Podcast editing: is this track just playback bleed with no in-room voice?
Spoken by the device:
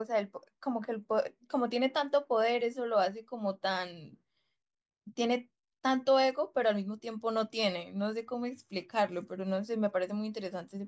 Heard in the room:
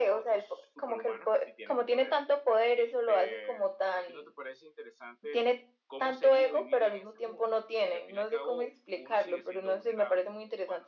No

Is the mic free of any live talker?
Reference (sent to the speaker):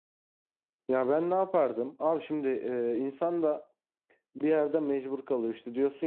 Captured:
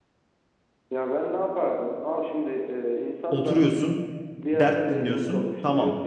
No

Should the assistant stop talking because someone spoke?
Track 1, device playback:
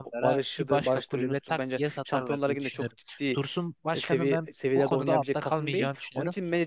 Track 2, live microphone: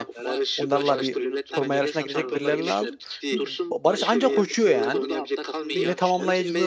Yes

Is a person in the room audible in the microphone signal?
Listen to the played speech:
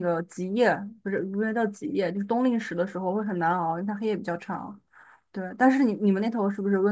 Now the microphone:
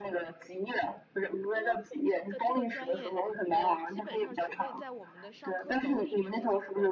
Yes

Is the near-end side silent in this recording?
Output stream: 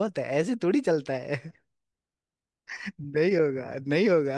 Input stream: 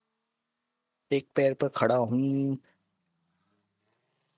No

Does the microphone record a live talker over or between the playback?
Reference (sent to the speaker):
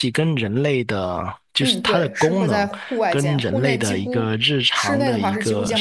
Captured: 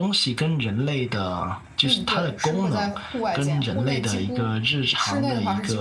No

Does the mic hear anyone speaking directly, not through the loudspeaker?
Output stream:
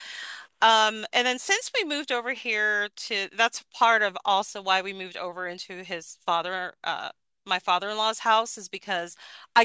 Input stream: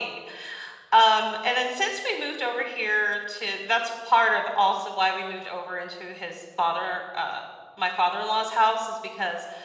No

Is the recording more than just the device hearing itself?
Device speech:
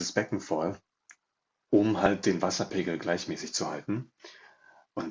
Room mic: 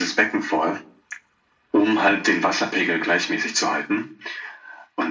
No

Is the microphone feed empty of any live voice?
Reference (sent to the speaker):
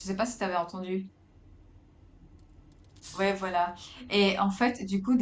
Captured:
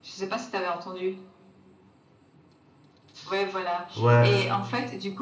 No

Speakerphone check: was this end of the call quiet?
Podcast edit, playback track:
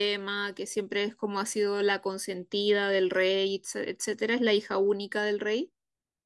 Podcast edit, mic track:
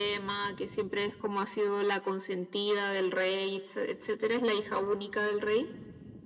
Yes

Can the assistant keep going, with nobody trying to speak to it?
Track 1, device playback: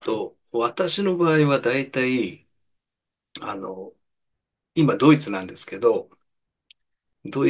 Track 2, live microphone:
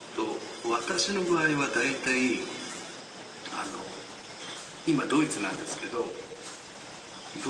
Yes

